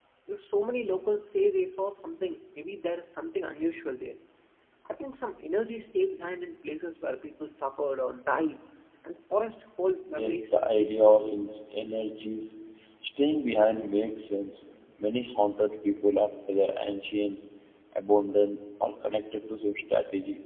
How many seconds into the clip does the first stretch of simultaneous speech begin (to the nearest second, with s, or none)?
10 s